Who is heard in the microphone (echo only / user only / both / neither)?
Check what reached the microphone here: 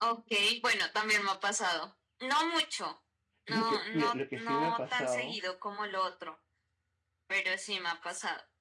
both